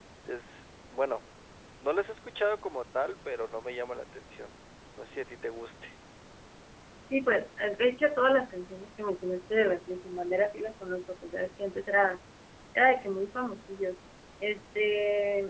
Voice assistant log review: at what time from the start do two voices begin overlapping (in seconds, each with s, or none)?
none